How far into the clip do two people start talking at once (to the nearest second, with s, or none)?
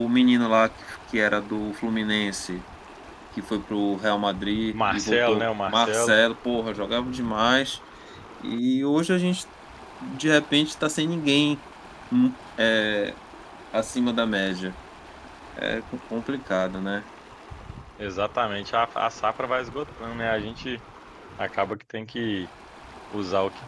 5 s